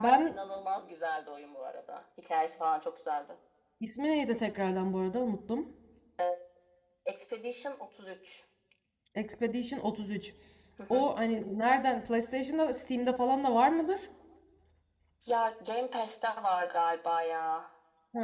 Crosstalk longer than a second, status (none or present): none